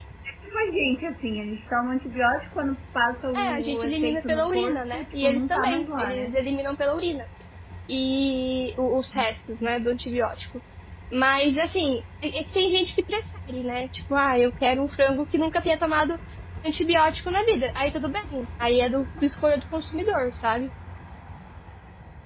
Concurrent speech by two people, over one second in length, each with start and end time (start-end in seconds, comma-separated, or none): 3.4-6.3